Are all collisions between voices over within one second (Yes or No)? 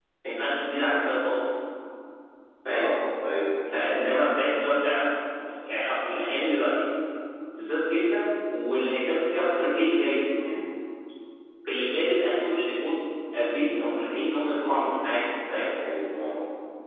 Yes